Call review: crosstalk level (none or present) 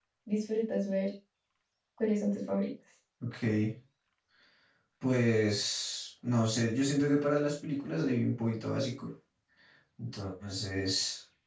none